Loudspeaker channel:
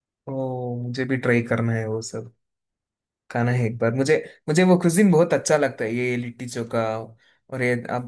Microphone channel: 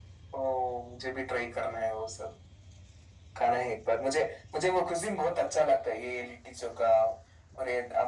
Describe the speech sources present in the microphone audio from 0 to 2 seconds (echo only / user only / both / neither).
echo only